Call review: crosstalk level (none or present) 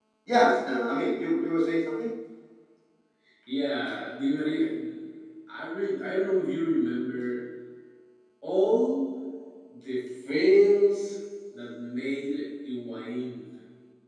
none